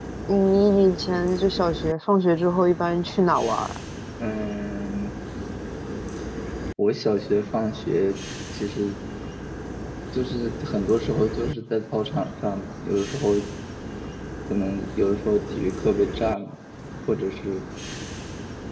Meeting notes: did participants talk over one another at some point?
No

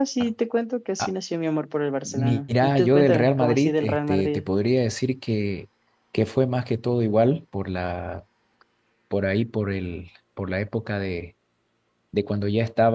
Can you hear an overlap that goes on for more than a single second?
Yes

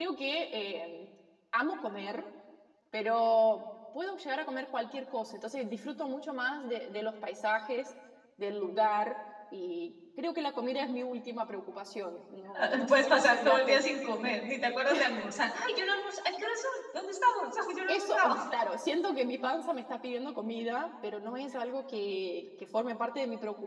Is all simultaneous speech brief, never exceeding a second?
No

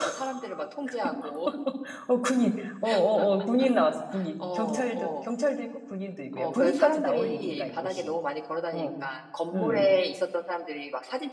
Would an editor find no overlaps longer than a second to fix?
No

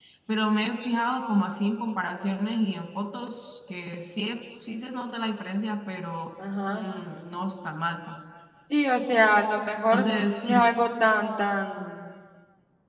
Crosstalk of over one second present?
No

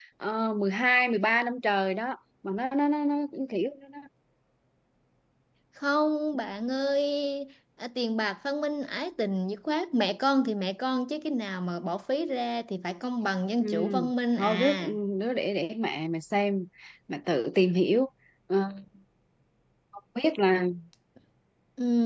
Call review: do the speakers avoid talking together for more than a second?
Yes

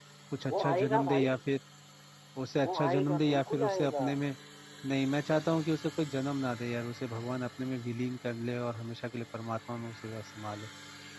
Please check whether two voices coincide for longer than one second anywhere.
Yes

